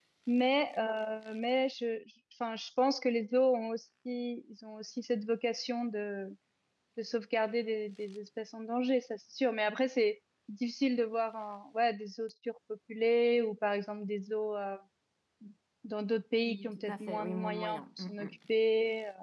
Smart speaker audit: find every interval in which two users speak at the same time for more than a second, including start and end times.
16.4-18.4

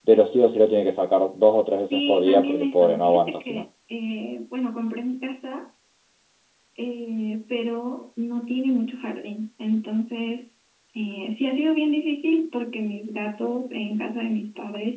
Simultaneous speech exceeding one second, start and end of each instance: 1.9-3.5

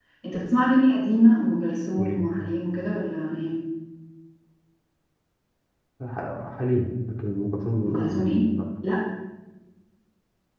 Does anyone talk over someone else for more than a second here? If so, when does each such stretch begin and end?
none

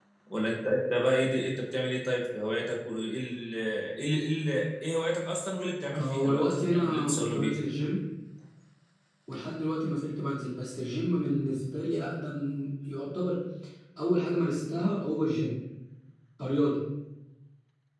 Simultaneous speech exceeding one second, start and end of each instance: 6.0-7.5

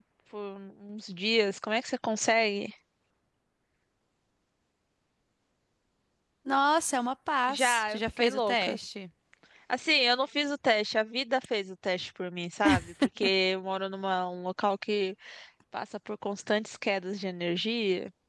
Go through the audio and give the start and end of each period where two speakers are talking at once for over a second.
7.5-8.8

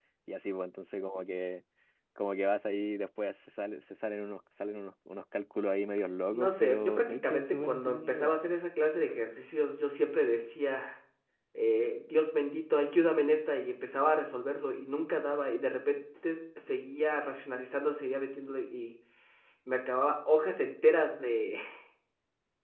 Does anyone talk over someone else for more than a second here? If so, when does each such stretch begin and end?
6.3-8.3

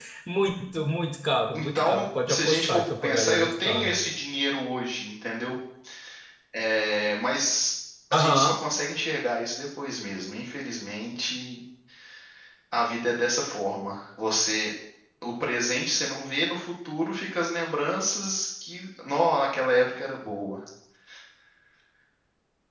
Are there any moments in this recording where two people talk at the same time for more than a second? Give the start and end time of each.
1.5-4.0

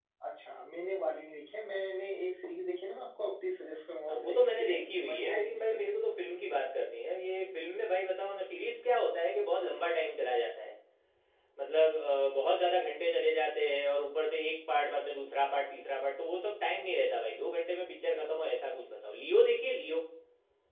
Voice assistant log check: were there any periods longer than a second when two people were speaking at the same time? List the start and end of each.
4.1-5.8

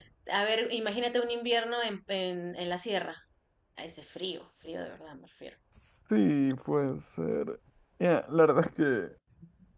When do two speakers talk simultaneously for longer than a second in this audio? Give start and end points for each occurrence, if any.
none

